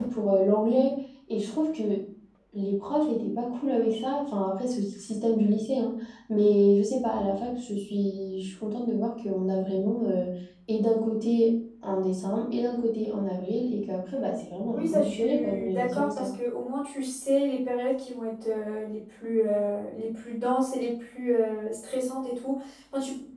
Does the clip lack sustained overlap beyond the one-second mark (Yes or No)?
No